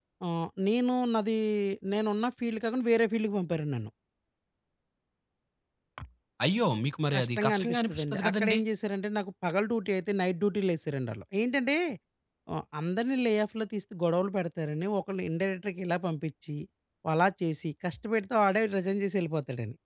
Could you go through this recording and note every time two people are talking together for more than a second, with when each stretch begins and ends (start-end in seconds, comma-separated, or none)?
7.1-8.6